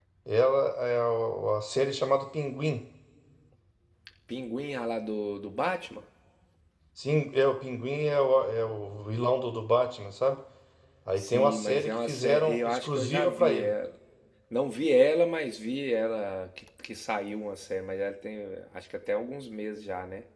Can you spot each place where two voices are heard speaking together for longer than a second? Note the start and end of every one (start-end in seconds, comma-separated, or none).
11.2-13.7